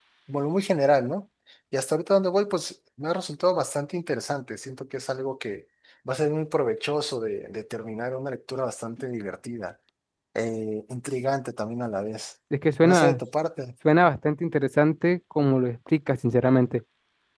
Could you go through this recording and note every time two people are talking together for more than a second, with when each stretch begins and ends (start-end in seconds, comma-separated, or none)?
none